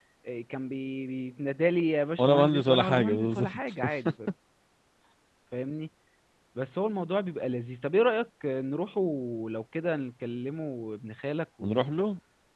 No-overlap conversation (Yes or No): No